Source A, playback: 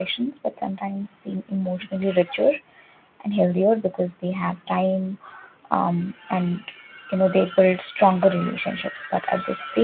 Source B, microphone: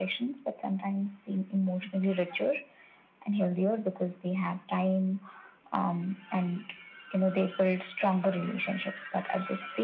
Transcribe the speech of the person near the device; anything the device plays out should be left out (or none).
none